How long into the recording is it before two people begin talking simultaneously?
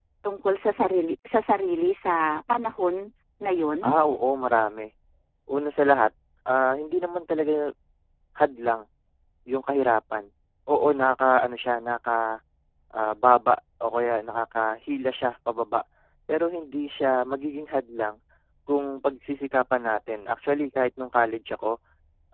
none

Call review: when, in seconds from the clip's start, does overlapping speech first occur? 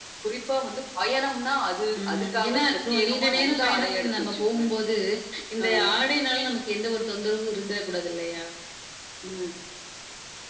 2.0 s

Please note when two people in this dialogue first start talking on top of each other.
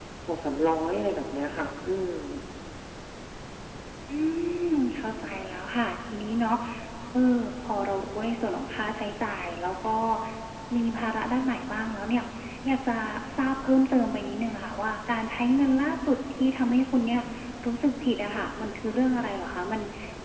none

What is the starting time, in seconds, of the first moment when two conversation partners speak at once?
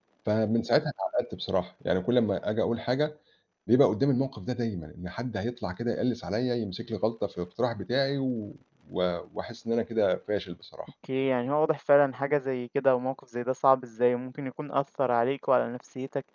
none

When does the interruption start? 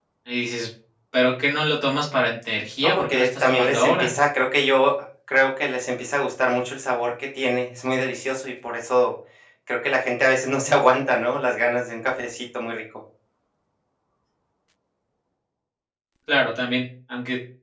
2.8 s

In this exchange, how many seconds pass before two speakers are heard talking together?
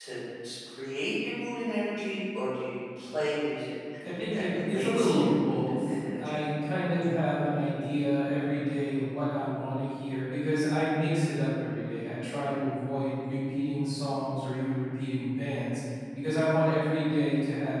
4.3 s

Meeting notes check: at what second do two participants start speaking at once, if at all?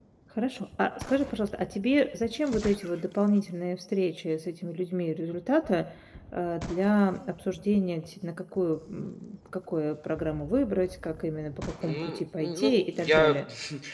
11.8 s

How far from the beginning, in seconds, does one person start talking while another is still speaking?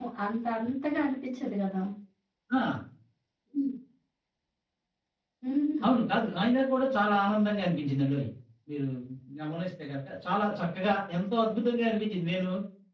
none

